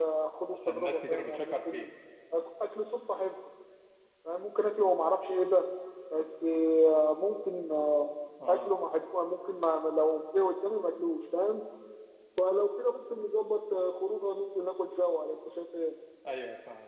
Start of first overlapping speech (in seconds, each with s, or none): 0.7 s